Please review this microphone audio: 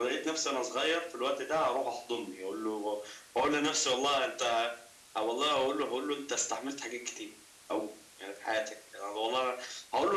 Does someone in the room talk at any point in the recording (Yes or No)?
No